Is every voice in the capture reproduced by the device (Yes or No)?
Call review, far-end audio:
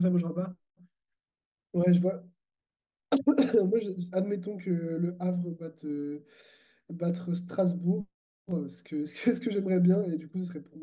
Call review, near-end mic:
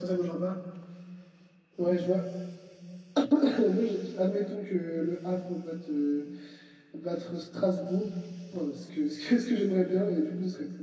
Yes